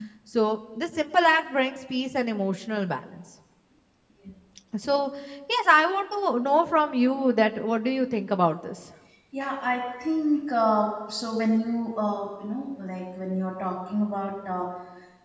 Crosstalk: none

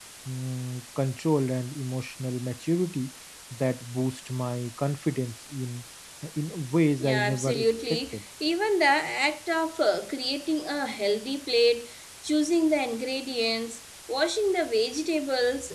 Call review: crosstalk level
present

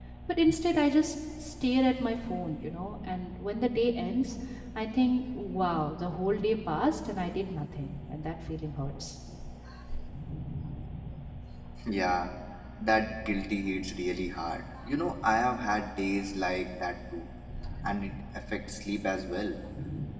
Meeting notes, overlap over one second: none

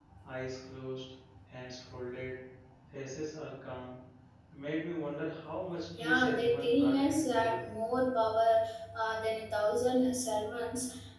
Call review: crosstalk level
present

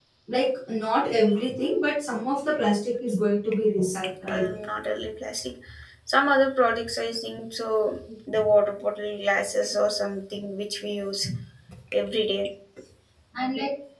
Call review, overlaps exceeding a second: none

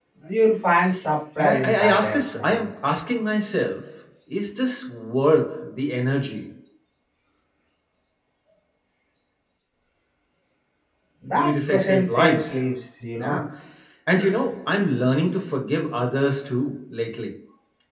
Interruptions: present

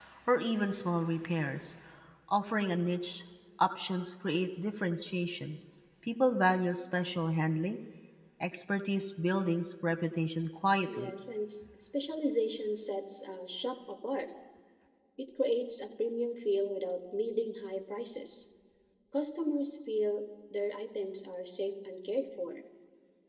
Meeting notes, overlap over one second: none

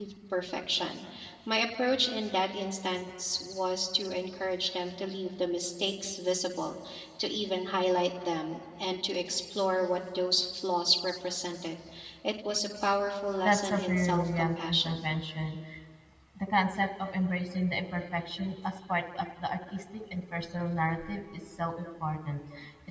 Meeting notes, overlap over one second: present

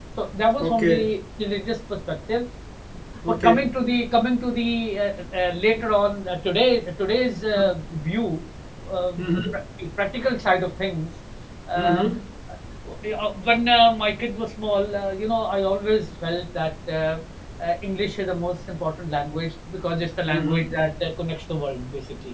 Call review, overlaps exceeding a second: none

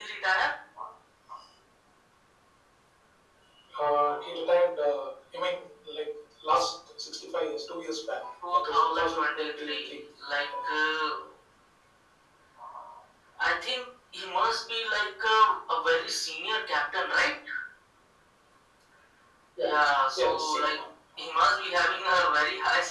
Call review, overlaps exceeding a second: present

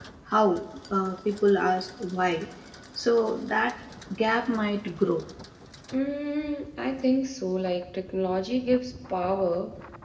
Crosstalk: none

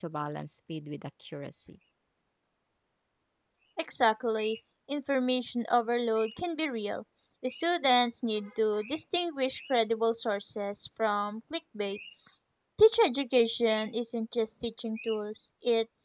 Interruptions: none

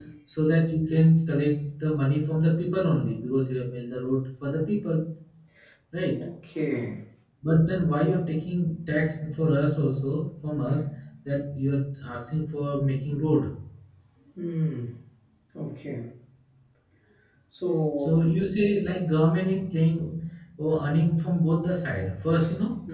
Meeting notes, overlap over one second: none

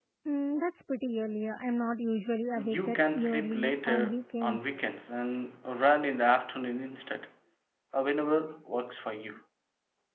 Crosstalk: present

